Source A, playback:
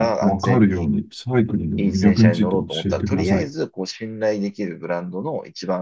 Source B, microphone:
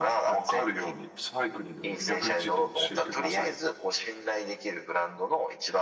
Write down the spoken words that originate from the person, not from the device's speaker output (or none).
none